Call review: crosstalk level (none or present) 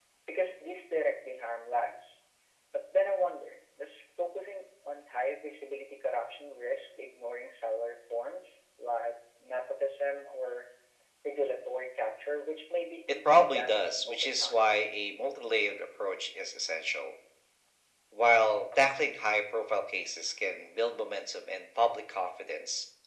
present